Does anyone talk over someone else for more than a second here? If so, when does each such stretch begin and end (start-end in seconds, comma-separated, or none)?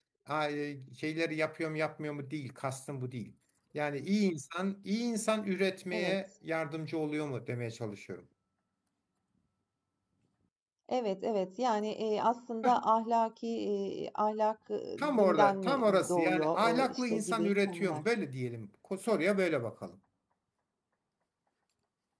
15.0-18.0